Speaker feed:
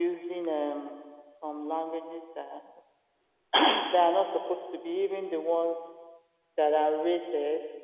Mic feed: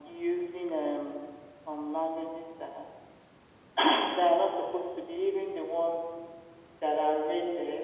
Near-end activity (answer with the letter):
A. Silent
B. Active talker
A